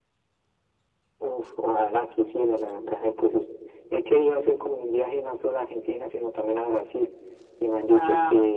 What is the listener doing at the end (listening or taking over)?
listening